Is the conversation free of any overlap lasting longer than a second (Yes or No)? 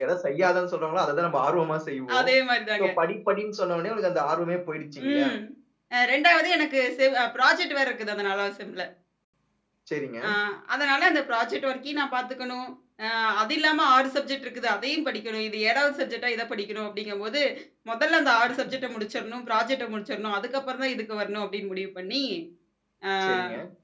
Yes